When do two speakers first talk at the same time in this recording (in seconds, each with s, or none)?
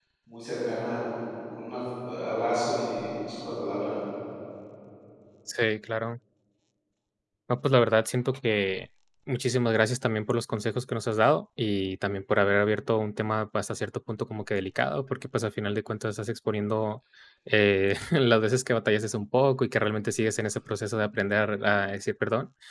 none